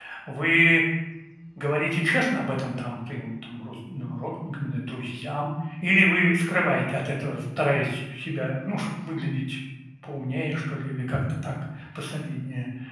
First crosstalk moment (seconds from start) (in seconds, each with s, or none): none